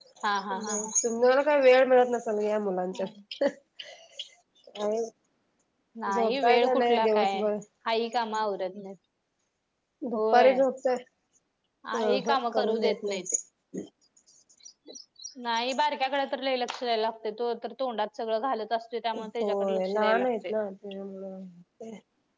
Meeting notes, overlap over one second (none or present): present